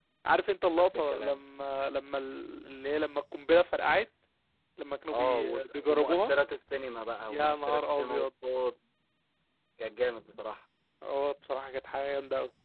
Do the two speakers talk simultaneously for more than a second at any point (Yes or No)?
Yes